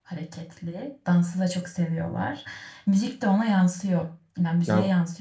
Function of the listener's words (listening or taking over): listening